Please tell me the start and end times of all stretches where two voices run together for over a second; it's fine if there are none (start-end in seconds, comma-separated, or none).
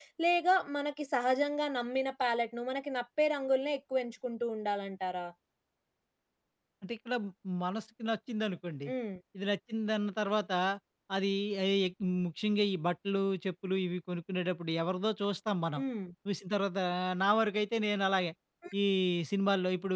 none